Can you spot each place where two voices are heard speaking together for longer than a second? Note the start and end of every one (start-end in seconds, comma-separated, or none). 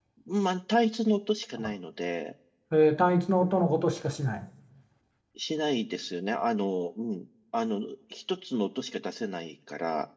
none